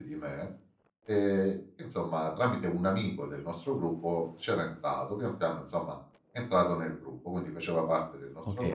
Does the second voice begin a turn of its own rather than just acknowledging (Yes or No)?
Yes